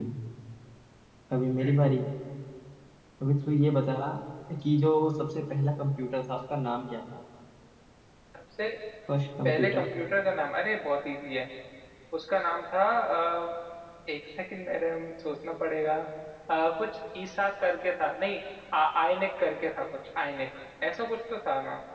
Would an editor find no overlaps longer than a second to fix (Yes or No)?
Yes